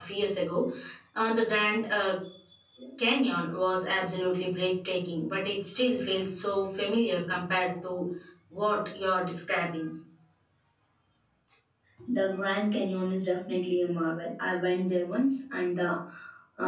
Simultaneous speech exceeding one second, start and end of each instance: none

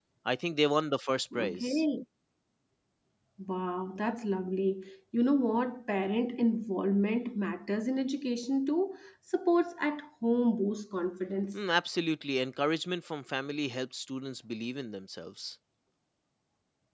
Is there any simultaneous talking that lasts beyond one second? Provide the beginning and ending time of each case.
none

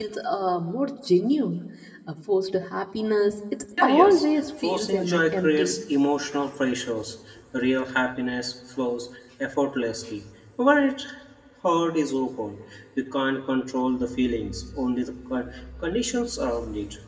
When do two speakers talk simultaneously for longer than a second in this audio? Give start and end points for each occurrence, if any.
3.8-5.8

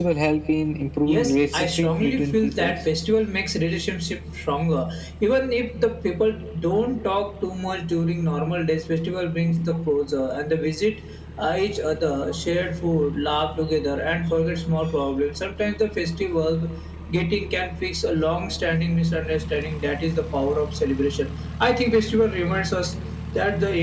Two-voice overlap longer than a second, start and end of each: 1.1-2.7

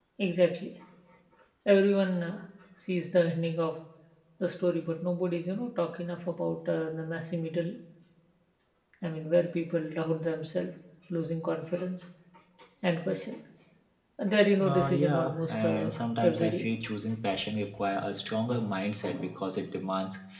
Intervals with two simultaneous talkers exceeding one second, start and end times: 14.6-15.9

